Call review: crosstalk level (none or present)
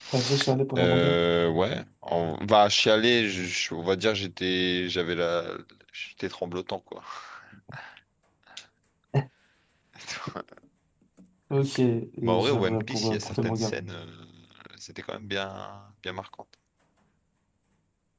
present